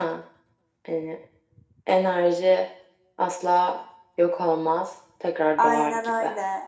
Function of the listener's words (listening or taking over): taking over